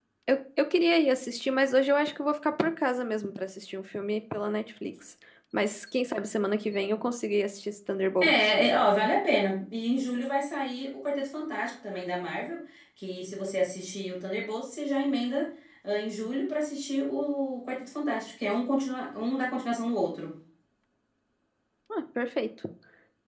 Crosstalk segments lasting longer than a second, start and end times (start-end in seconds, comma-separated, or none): none